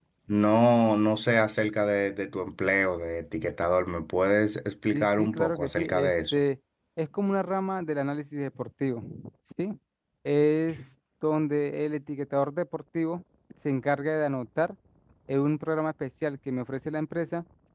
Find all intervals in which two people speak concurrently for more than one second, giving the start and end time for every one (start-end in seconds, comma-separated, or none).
4.9-6.4